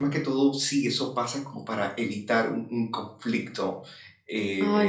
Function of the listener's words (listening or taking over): listening